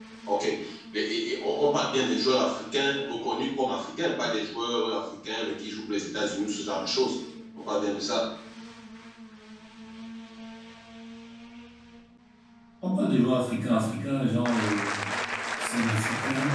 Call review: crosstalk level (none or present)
none